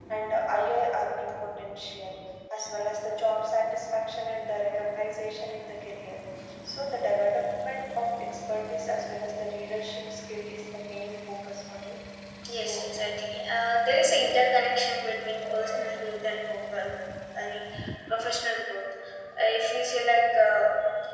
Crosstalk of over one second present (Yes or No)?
No